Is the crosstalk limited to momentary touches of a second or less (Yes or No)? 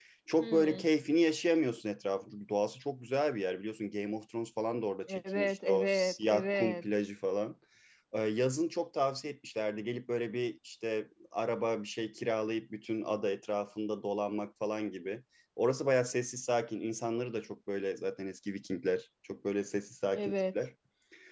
No